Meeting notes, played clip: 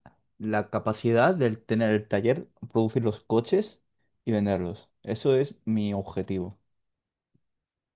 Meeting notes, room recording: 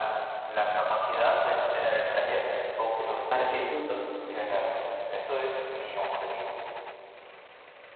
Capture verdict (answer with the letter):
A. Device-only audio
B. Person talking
B